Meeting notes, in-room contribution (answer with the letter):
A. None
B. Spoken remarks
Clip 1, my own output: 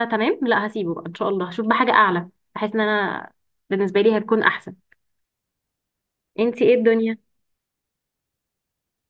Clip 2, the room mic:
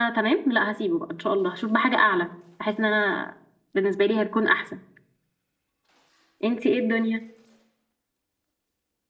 A